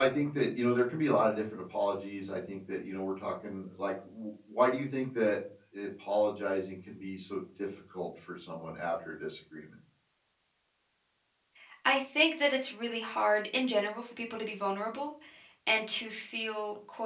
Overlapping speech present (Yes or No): No